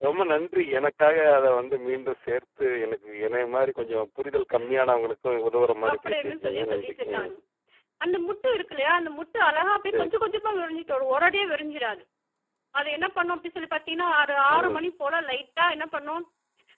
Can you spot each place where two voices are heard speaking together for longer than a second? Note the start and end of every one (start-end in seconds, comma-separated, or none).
5.9-7.3